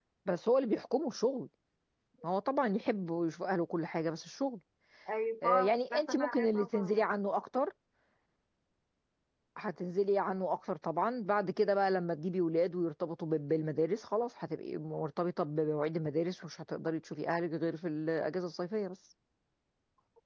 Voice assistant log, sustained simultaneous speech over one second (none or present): present